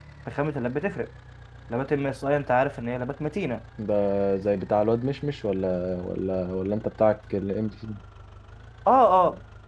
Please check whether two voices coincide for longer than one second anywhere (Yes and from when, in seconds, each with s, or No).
No